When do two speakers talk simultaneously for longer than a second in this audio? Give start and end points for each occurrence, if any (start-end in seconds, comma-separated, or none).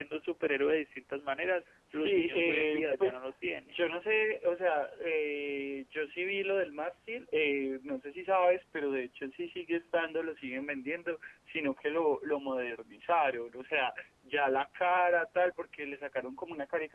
1.9-3.2